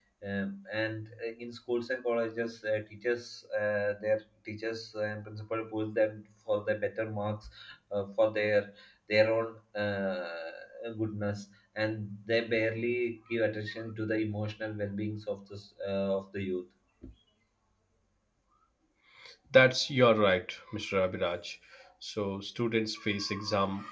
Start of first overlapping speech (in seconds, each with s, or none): none